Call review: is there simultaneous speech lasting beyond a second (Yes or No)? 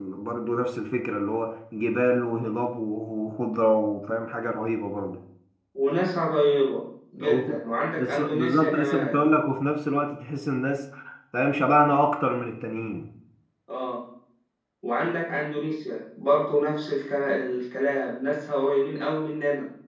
Yes